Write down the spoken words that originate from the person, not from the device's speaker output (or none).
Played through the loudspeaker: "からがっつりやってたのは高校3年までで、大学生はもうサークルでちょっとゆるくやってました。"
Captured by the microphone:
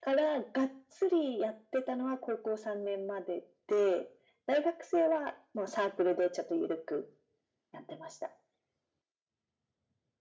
none